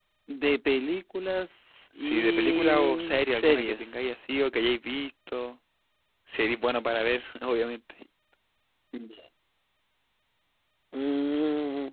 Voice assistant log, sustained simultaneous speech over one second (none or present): present